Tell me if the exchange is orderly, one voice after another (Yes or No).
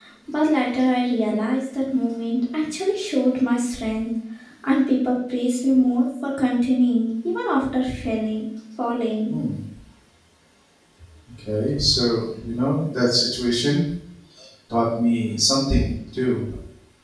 Yes